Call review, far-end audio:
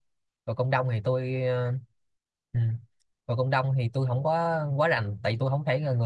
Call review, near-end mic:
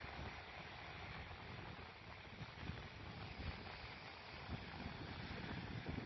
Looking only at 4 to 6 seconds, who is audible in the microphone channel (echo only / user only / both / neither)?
neither